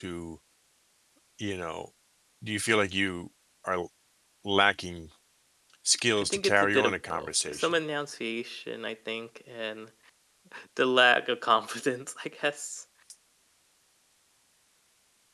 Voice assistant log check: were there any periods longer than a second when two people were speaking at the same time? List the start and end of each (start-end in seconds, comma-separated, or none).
6.2-7.8